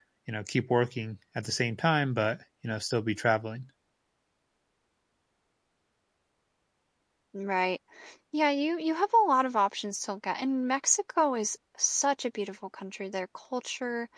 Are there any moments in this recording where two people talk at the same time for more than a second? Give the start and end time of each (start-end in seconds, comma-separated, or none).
none